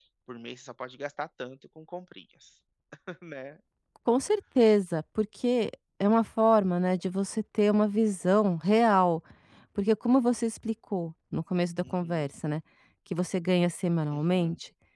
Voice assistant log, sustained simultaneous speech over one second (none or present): none